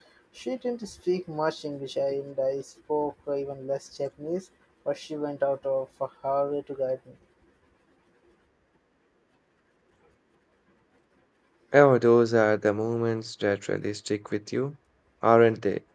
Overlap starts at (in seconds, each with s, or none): none